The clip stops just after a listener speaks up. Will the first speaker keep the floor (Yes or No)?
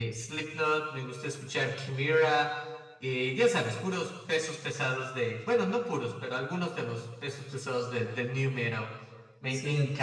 No